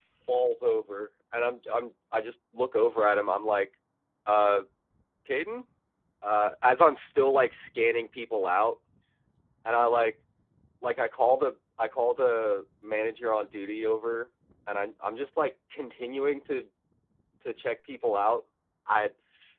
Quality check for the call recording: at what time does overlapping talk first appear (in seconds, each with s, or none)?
none